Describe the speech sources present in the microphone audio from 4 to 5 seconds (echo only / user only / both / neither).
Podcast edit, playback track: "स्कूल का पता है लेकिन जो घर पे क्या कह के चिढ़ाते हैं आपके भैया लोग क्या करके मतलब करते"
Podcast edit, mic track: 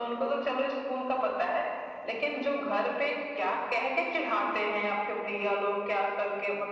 echo only